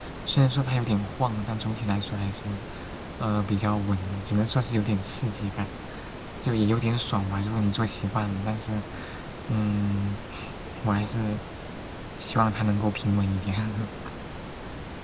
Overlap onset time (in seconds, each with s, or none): none